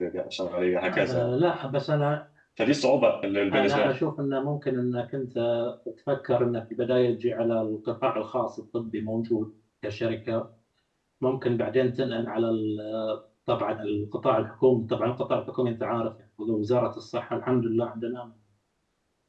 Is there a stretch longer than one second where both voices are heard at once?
No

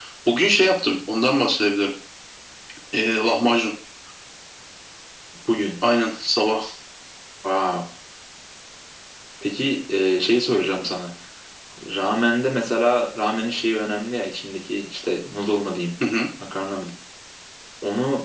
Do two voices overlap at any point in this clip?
No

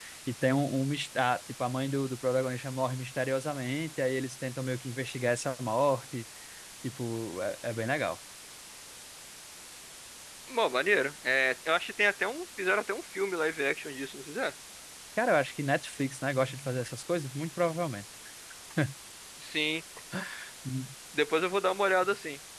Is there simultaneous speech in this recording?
No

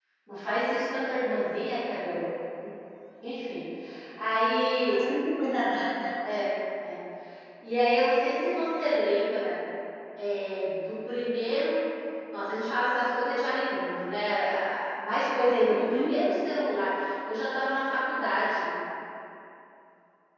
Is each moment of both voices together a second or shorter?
Yes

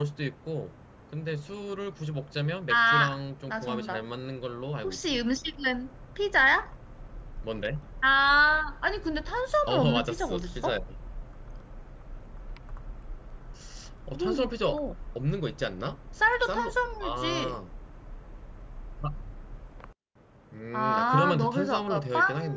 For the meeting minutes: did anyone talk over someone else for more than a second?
Yes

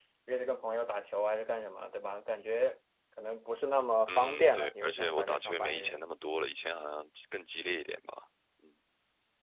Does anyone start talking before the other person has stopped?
Yes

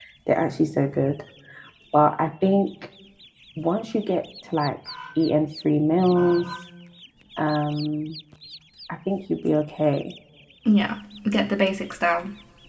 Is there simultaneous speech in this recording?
No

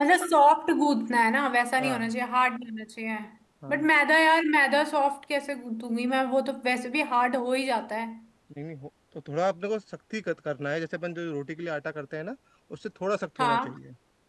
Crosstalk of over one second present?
No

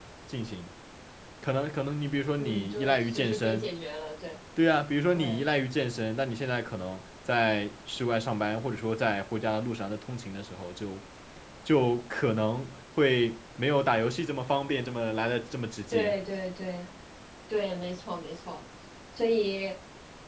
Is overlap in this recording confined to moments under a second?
No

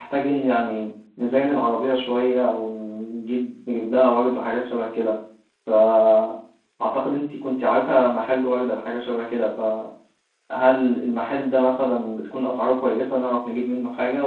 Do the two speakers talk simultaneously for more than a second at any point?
No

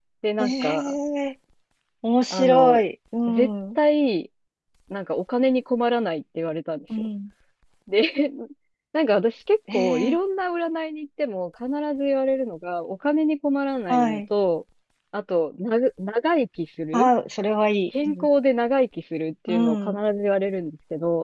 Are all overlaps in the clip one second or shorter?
Yes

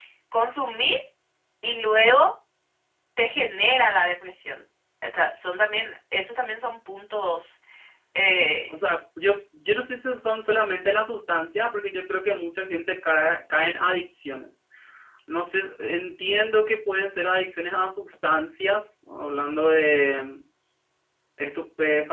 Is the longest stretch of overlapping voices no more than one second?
Yes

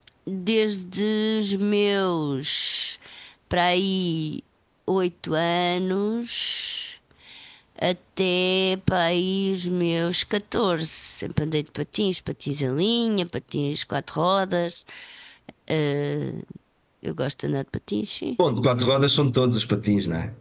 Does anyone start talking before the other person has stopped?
No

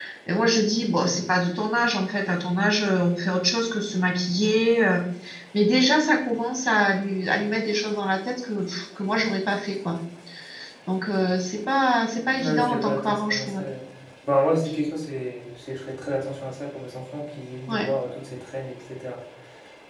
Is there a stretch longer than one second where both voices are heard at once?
Yes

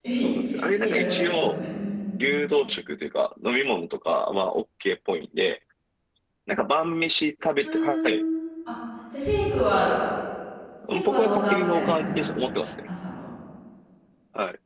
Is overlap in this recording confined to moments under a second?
No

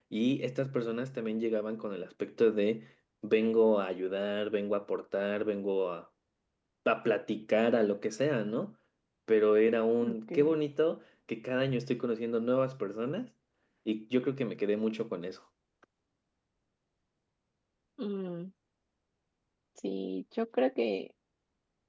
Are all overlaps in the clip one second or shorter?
Yes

